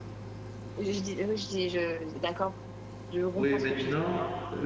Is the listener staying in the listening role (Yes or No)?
No